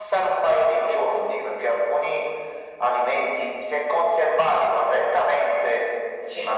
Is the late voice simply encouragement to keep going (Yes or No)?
Yes